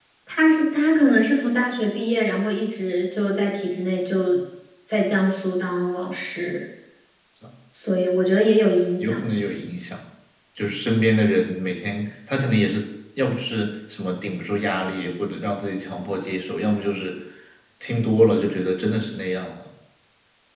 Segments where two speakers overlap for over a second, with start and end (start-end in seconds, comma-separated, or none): none